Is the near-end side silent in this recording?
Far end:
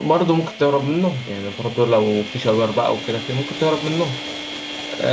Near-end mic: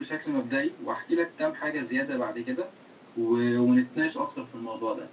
No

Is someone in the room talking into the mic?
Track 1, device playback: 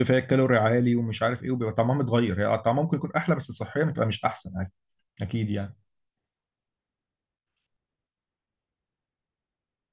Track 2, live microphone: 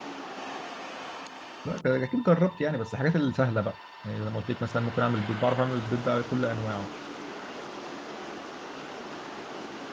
Yes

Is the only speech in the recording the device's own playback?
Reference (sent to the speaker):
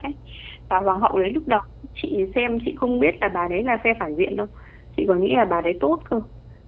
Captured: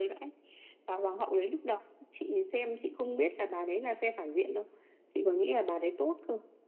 Yes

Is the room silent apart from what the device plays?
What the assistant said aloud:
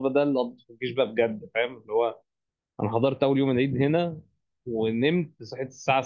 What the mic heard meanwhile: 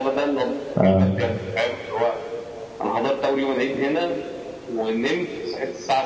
No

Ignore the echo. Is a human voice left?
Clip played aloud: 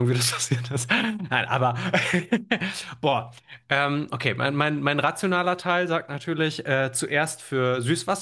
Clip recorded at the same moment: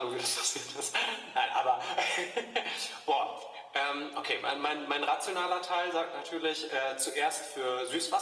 No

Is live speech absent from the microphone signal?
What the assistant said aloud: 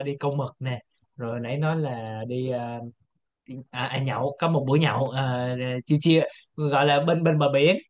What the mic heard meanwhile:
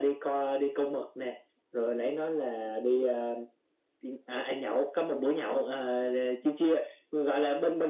Yes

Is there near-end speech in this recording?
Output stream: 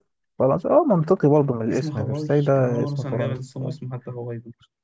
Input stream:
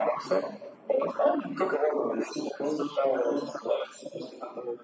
No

